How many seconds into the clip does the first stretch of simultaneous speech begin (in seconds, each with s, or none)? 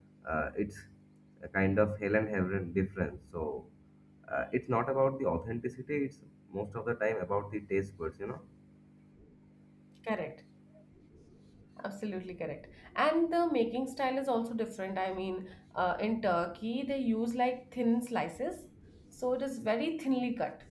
none